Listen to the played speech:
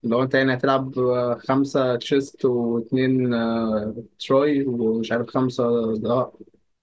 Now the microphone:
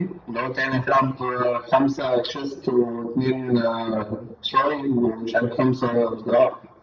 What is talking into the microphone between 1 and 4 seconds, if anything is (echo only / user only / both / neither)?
echo only